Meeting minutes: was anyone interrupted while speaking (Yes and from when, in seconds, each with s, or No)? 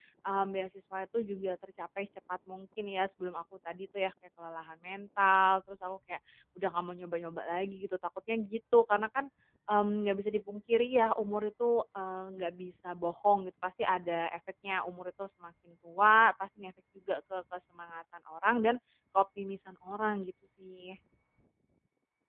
No